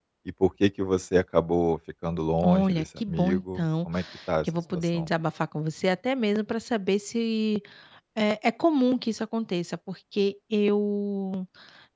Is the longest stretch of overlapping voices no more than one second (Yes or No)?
No